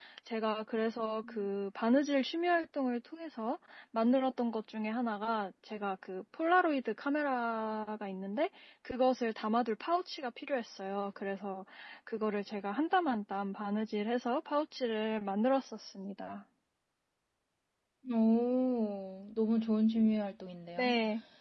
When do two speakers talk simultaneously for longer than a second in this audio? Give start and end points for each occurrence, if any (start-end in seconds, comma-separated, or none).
none